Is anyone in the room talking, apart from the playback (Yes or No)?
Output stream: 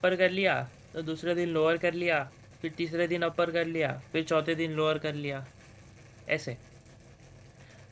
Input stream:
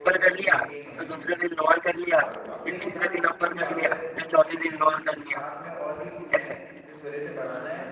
Yes